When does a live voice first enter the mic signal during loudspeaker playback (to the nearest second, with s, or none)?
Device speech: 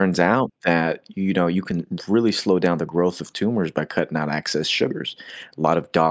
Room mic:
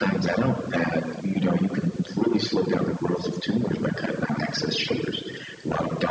none